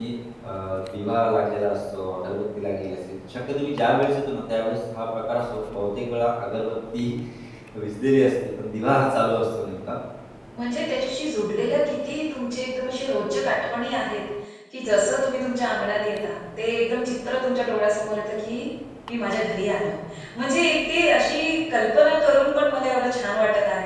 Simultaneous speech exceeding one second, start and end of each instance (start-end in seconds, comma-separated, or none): none